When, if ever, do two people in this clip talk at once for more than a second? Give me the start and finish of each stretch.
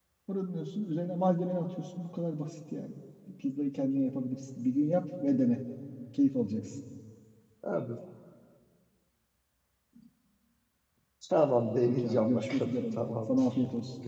11.8-13.3

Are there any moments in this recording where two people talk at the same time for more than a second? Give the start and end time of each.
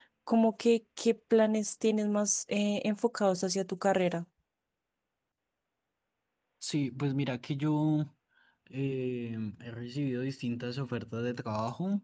none

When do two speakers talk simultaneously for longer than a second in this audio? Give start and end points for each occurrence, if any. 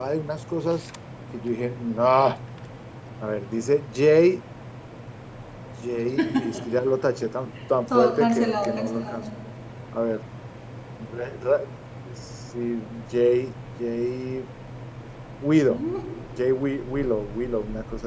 8.0-9.2

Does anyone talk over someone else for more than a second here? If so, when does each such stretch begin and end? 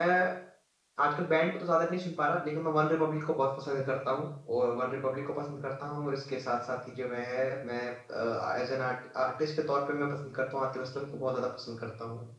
none

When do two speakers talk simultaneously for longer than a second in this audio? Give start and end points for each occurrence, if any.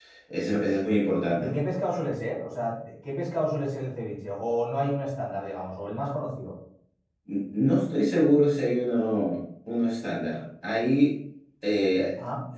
none

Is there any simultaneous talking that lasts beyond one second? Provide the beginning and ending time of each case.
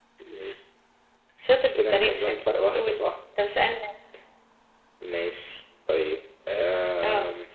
1.8-3.0

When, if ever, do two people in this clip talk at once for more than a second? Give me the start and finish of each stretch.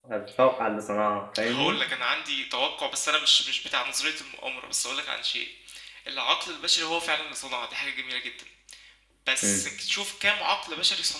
none

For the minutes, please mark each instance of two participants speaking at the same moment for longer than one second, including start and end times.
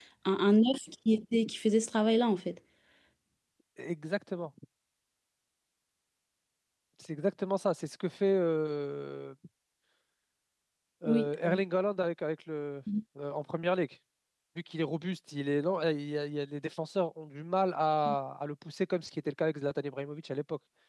none

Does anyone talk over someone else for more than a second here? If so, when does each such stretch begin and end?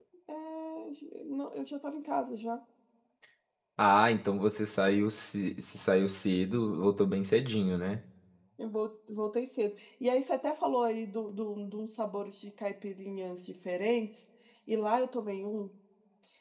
none

